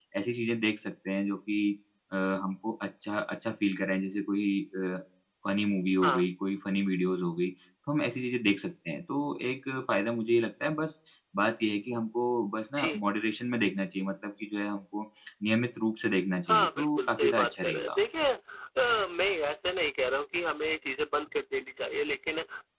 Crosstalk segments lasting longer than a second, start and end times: 16.5-18.0

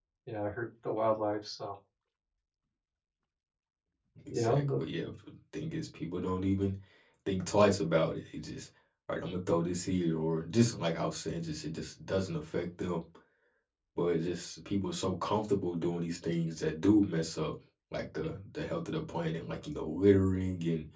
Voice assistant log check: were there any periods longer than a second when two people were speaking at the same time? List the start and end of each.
none

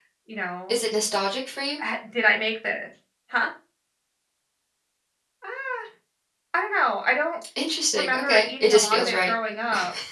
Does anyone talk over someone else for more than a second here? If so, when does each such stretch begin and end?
8.0-9.3

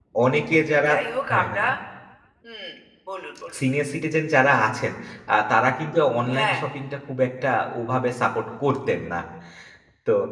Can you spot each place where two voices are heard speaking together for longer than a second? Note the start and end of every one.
none

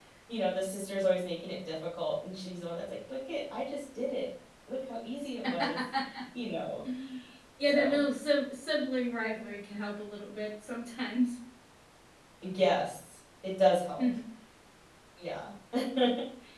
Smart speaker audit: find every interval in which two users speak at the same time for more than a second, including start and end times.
none

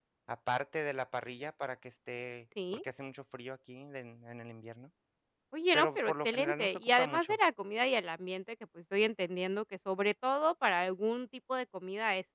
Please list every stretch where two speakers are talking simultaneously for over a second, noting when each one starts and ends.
5.7-7.4

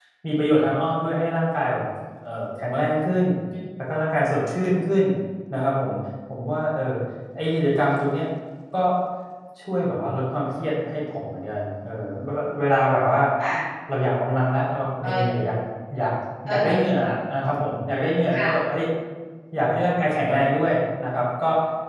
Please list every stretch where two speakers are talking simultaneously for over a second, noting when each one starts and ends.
none

